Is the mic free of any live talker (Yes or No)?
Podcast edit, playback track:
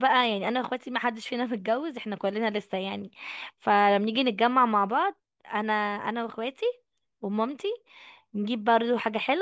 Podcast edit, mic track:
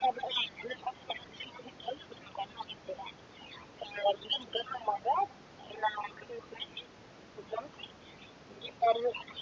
Yes